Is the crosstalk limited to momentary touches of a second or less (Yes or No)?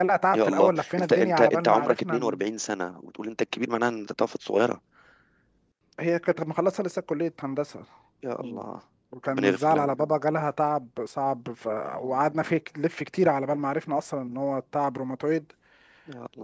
No